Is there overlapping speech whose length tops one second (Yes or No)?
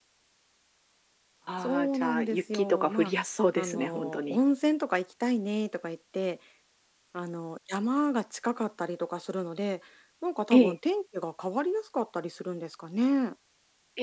Yes